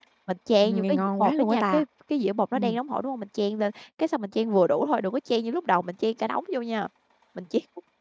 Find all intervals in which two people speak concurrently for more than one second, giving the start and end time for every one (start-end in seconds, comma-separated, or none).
0.6-1.8